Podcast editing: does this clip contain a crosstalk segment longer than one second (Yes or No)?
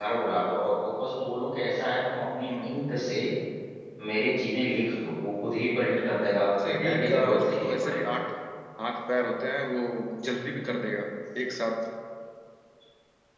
Yes